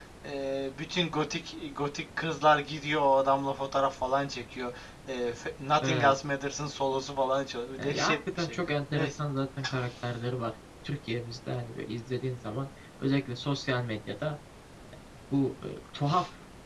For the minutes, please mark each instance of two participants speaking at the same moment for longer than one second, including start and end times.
7.8-9.1

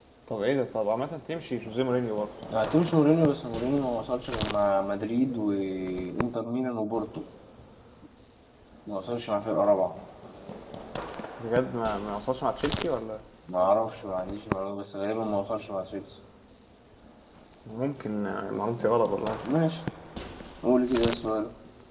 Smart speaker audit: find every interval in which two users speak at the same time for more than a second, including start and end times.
none

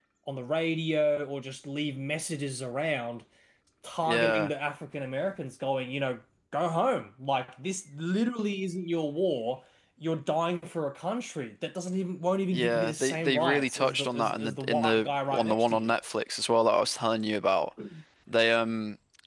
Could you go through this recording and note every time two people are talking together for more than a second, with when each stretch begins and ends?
12.5-15.9

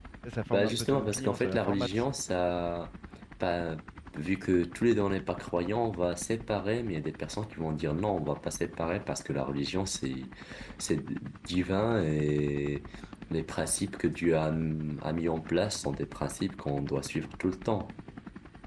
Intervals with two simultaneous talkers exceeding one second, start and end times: 0.5-2.0

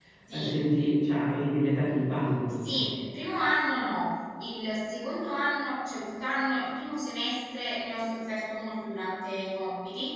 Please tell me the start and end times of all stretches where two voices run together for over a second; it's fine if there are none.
none

